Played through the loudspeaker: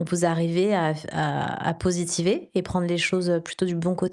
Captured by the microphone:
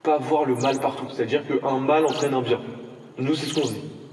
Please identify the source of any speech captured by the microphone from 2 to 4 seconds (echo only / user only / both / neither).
user only